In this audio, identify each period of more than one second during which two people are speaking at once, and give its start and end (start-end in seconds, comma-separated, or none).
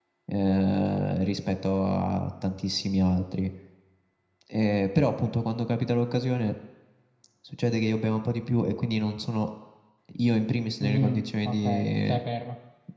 10.8-12.1